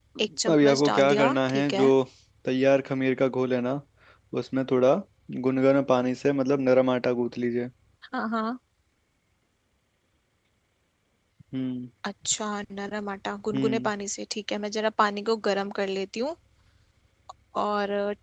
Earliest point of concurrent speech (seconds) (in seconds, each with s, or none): 0.5 s